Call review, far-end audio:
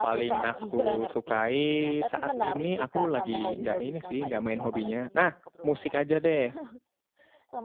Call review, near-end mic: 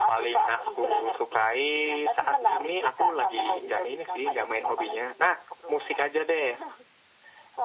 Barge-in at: none

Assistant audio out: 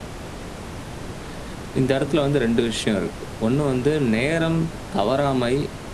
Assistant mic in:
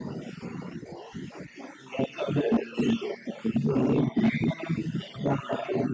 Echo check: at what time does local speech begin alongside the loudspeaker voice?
none

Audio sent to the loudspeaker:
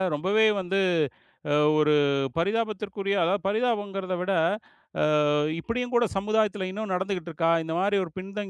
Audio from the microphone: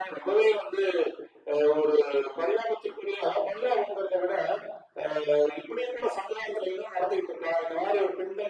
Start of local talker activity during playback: none

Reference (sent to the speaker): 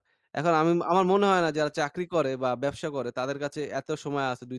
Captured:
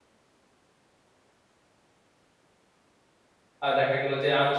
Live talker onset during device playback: 3.6 s

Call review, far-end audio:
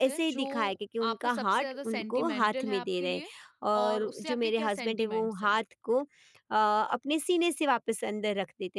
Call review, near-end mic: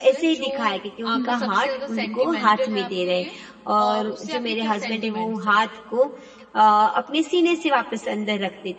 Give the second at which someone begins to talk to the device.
1.1 s

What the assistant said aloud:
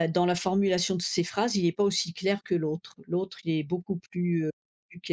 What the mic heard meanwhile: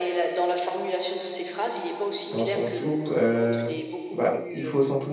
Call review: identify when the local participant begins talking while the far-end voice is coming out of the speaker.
2.3 s

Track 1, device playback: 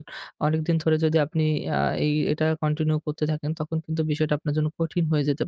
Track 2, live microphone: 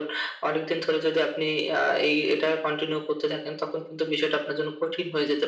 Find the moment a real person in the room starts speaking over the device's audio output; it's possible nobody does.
none

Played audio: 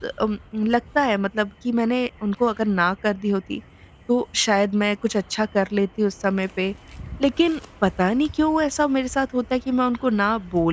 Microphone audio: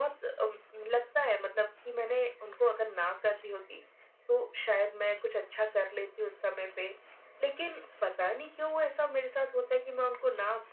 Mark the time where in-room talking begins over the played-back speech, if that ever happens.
none

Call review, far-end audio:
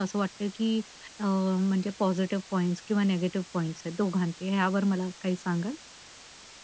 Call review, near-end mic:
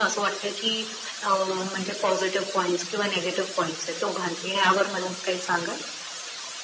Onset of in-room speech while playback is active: none

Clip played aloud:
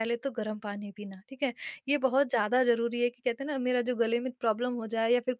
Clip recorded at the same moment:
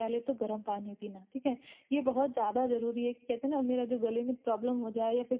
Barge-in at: none

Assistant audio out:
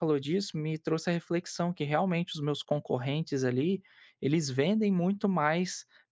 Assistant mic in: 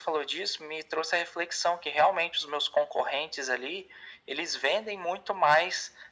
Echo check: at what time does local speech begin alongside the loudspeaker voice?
none

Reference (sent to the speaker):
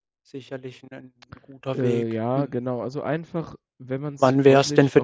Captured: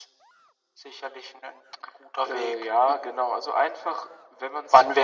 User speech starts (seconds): none

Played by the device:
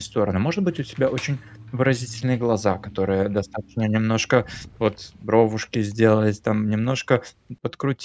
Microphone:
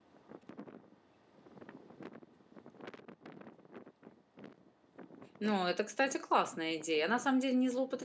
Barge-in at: 5.4 s

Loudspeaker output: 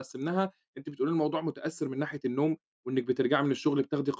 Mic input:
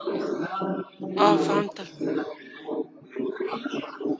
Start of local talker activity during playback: 1.2 s

